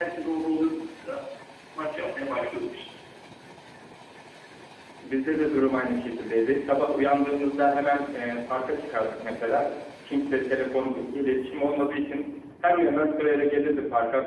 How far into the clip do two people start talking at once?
none

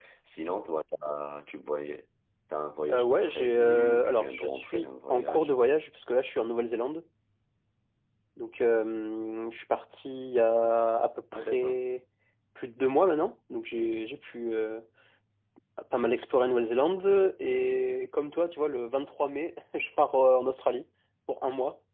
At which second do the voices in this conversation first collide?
3 s

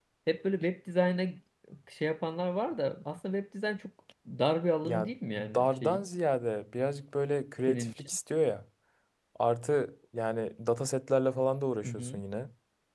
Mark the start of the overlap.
5 s

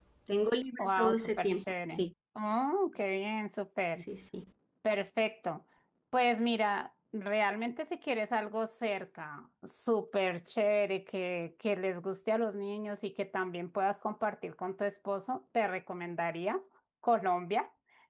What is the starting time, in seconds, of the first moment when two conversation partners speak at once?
1 s

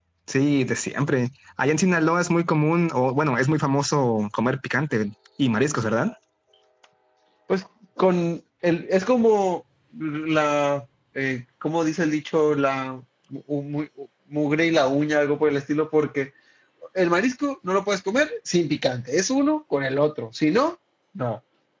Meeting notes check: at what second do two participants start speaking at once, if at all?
none

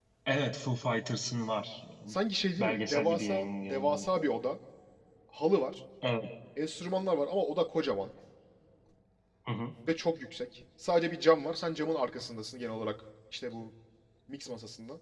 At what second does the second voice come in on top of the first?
3 s

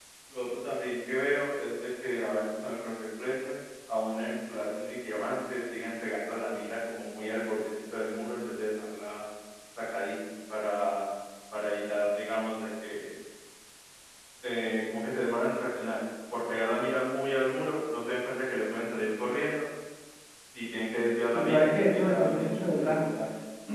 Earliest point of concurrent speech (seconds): 21 s

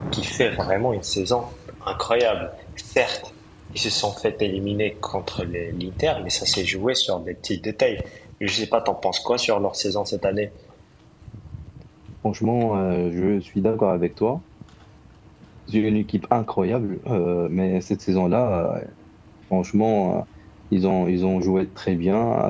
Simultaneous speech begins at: none

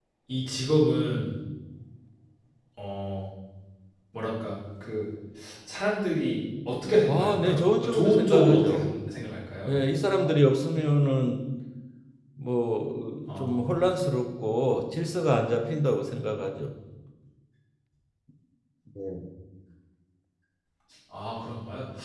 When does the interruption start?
7 s

